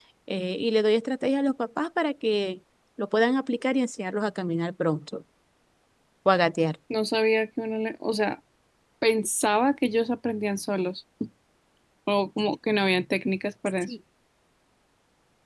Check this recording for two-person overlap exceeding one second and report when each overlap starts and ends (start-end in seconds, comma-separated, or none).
none